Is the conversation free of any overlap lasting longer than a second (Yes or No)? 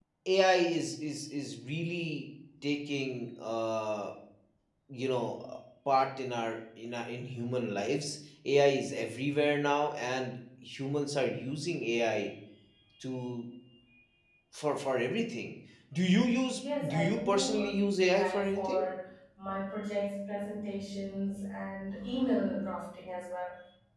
No